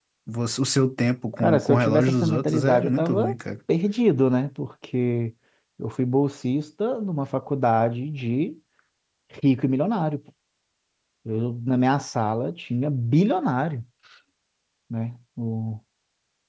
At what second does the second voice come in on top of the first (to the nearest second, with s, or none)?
1 s